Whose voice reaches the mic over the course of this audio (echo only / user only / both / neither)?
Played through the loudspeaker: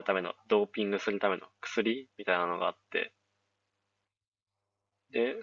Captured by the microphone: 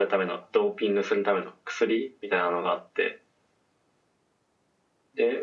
echo only